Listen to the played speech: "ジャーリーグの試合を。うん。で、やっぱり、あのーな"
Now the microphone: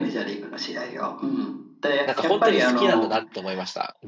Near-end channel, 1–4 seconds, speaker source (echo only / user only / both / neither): both